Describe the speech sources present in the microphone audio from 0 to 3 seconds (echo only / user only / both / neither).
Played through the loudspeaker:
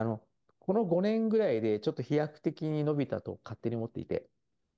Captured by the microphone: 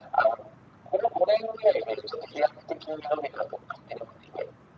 echo only